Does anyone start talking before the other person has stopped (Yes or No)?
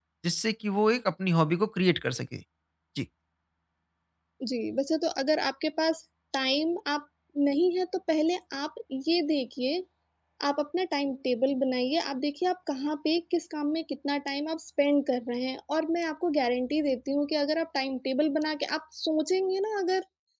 No